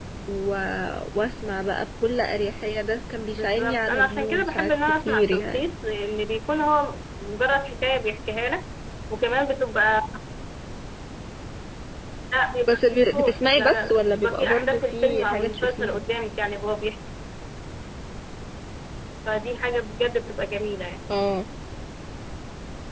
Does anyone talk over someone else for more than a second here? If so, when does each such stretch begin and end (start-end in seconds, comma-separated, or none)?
3.3-5.6, 12.7-16.0